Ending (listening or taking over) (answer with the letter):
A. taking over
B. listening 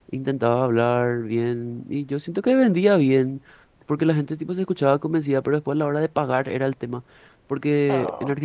B